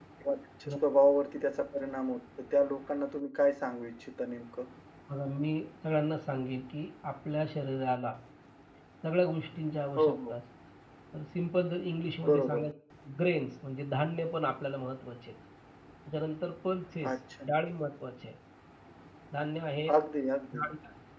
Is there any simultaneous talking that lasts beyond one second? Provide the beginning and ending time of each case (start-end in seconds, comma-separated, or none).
none